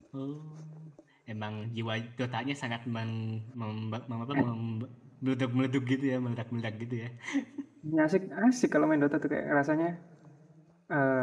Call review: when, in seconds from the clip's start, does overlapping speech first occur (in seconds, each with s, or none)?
none